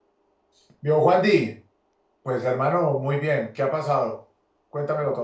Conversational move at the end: taking over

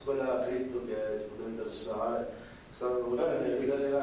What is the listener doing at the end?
listening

